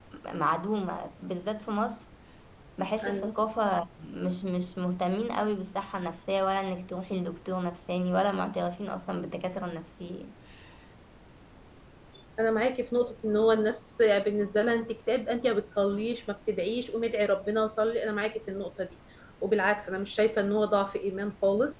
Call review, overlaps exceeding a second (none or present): none